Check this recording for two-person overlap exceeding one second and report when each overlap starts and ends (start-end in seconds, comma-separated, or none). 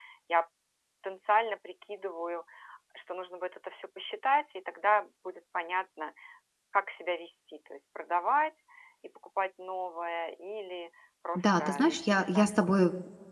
11.3-12.8